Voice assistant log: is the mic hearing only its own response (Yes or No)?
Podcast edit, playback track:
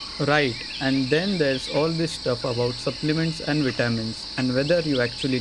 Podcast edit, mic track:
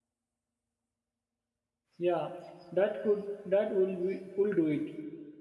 No